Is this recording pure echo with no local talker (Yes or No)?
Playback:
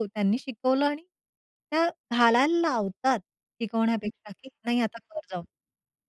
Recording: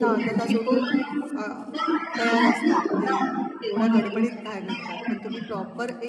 No